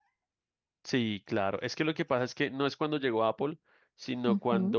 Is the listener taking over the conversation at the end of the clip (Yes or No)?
No